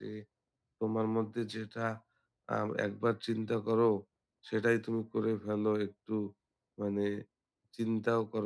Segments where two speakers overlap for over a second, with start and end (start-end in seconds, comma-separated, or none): none